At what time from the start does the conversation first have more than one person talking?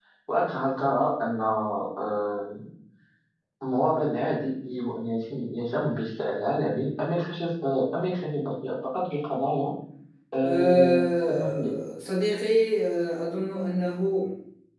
10.4 s

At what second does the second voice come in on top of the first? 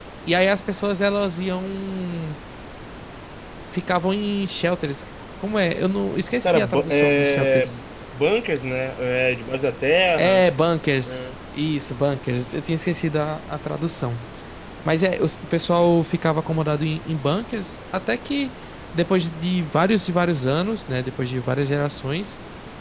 6.4 s

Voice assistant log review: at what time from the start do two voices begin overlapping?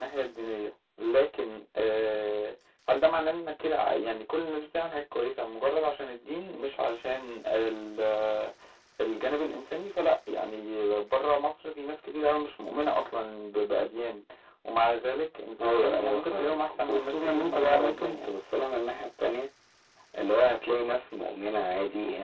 15.6 s

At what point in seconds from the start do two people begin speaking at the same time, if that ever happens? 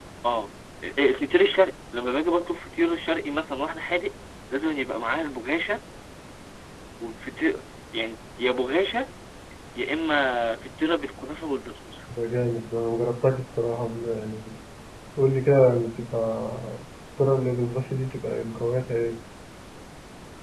none

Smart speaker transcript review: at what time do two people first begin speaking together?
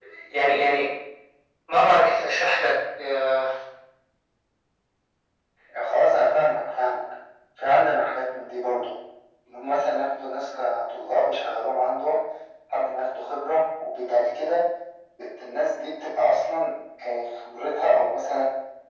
none

